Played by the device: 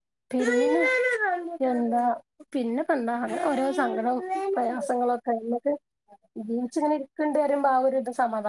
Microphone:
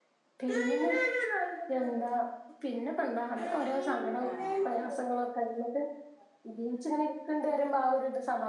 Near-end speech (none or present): present